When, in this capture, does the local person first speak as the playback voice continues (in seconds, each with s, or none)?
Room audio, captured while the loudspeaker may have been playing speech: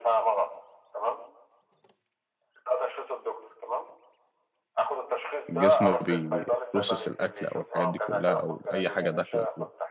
5.5 s